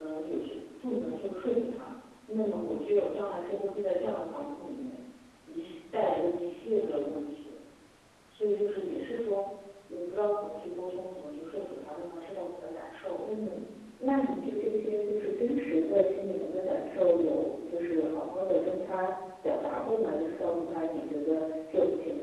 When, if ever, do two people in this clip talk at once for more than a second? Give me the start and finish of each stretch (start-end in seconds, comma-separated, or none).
none